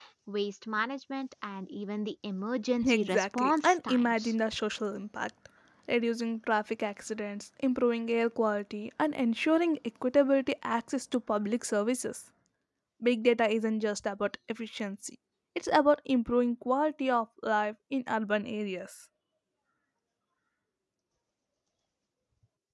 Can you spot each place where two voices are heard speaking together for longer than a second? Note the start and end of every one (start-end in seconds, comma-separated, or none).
2.8-4.3